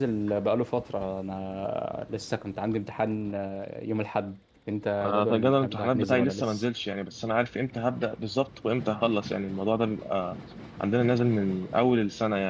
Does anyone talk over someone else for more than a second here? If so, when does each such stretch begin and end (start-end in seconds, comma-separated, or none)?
5.0-6.6